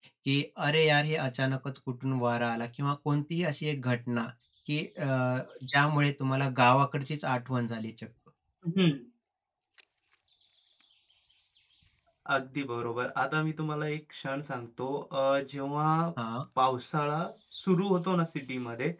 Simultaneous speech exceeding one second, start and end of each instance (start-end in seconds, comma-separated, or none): none